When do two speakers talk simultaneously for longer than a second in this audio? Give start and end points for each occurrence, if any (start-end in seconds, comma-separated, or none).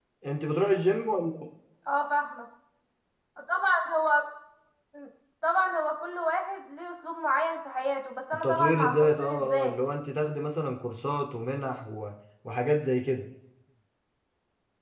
8.4-9.8